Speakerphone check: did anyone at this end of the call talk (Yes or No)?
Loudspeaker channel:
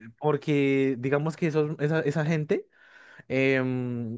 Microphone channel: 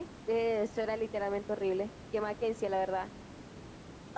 Yes